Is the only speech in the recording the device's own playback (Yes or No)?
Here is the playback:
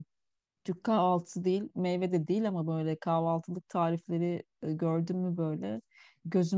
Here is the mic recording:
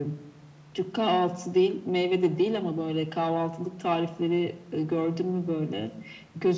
Yes